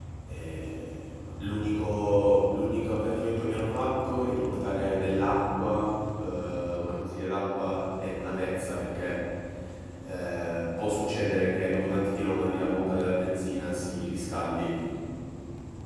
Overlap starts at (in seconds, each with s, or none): none